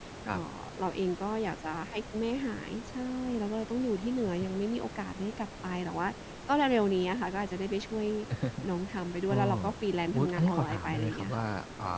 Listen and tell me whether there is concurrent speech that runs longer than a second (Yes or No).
Yes